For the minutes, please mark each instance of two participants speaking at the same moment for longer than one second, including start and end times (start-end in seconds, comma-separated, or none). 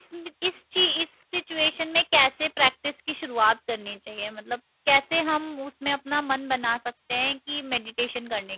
none